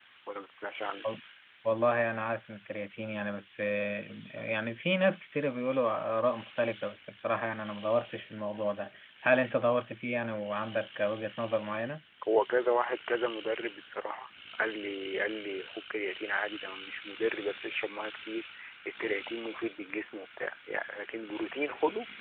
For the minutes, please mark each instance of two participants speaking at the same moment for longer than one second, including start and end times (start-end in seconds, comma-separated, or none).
none